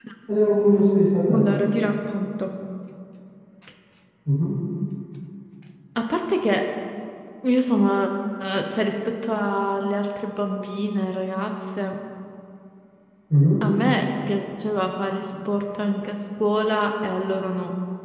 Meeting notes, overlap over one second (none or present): none